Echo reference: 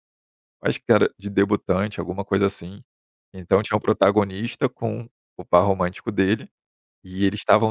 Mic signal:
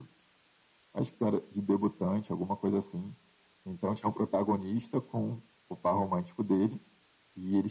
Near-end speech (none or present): none